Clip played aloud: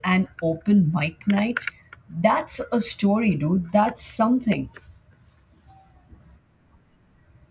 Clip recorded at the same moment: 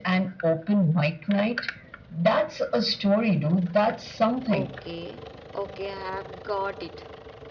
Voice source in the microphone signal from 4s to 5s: both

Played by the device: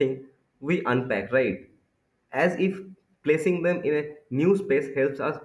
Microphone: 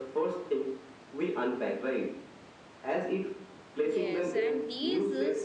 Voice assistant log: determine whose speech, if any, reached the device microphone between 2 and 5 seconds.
both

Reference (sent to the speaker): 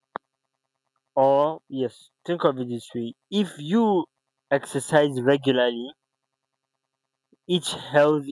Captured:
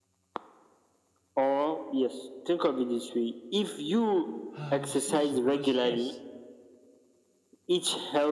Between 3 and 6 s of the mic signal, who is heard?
both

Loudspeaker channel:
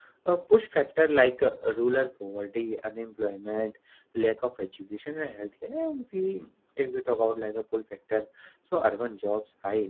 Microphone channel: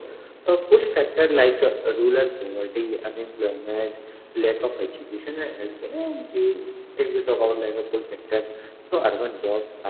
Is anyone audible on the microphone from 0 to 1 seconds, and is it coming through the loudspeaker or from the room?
echo only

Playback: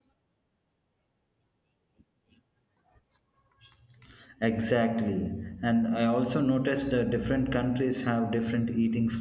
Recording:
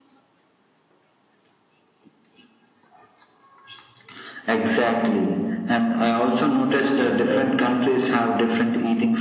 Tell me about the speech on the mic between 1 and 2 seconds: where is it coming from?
neither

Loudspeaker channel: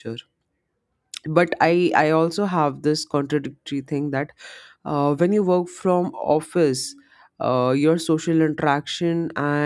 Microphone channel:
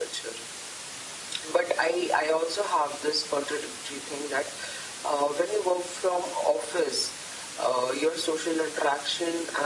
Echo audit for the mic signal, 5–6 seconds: echo only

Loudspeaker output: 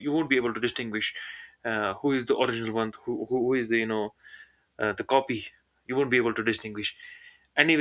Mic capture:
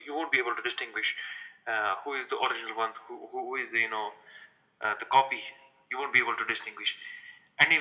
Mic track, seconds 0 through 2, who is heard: echo only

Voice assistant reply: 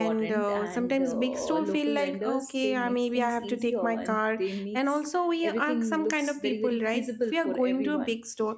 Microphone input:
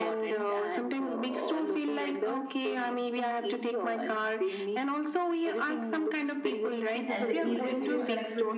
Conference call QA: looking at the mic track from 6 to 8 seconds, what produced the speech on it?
both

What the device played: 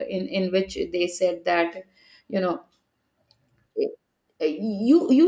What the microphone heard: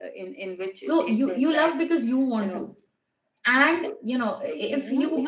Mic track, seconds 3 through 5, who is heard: both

